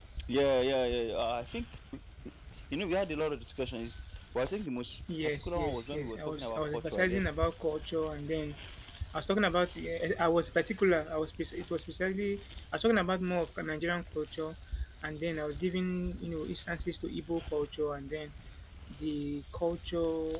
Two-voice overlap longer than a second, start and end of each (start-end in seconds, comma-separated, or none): 5.2-7.3